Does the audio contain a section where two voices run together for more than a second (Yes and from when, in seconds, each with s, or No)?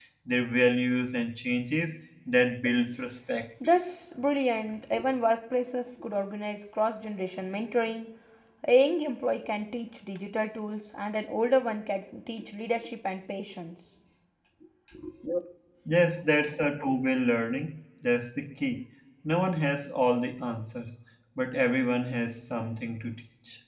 No